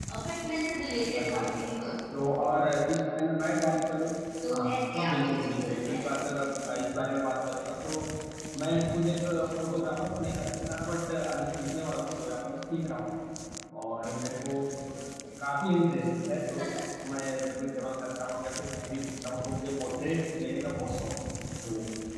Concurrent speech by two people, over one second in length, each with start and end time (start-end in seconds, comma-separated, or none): 4.5-6.0